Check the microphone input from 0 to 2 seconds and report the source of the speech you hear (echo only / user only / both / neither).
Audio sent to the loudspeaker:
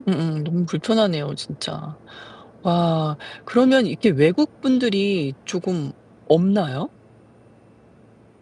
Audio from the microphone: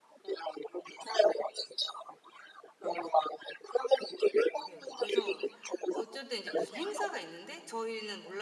echo only